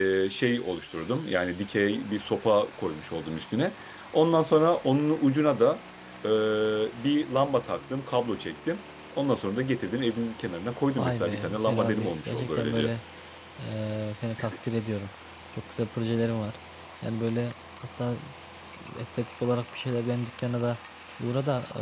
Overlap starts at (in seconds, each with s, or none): 11.0 s